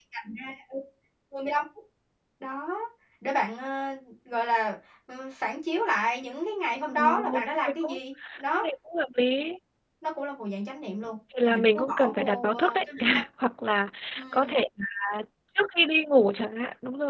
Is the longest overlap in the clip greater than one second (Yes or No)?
Yes